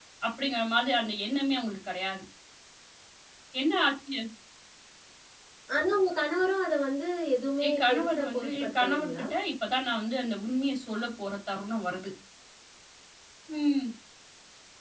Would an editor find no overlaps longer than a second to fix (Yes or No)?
No